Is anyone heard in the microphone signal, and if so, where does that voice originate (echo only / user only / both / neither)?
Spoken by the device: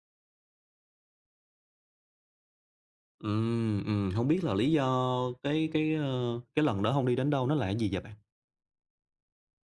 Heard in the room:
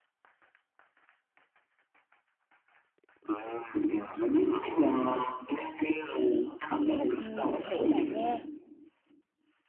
both